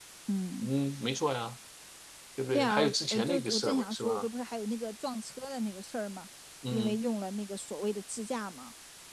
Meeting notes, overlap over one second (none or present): present